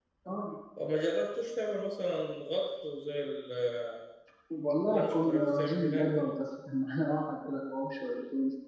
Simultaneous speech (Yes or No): Yes